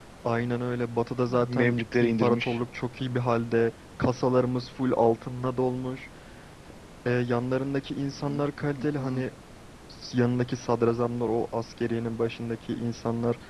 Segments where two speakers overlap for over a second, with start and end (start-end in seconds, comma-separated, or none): 1.3-2.6